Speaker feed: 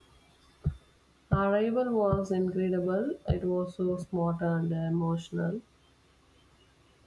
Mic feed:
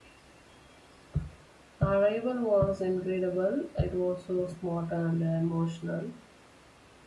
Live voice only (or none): none